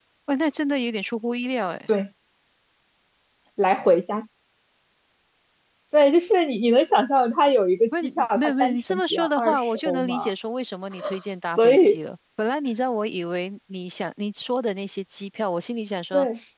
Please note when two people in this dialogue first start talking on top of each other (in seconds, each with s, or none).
8.0 s